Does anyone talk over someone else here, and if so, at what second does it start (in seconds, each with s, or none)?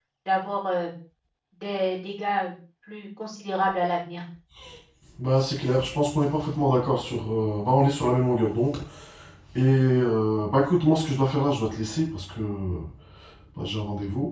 none